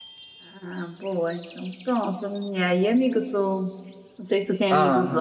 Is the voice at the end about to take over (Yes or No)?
No